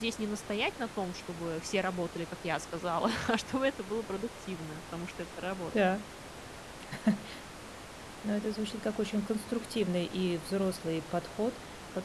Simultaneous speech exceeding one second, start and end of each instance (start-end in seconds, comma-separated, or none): none